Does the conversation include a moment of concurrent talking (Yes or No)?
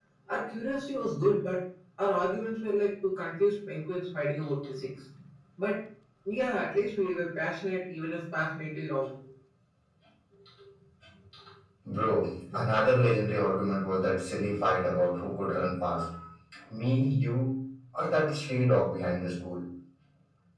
No